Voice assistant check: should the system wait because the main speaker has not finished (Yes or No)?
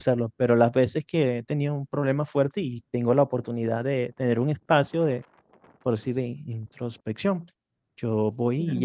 Yes